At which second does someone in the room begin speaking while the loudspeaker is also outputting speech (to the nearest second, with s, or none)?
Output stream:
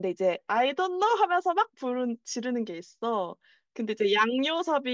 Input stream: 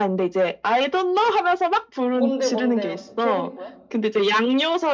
2 s